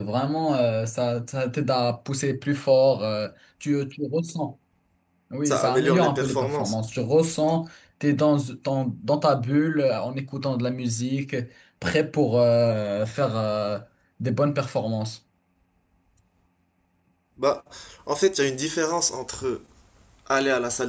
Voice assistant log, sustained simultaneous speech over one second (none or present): present